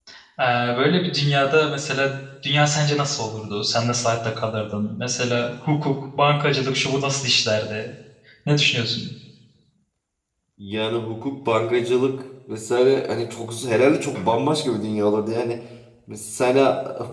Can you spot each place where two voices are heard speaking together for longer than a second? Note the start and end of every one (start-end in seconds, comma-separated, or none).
none